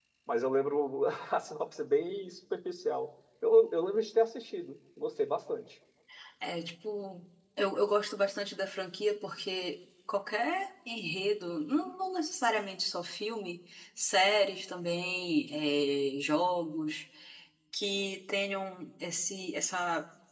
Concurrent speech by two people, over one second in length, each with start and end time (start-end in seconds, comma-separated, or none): none